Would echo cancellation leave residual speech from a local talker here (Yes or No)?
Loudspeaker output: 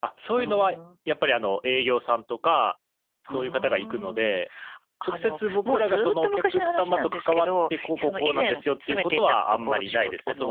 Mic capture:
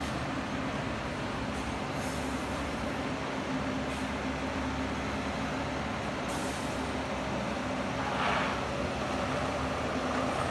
No